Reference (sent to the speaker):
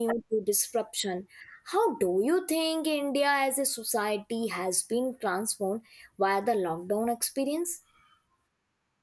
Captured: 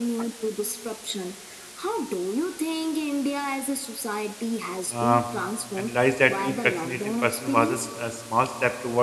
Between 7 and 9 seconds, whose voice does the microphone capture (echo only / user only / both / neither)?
both